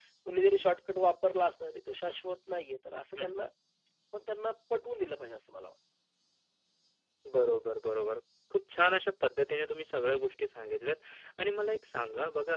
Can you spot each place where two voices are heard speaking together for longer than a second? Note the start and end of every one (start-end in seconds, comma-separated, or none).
none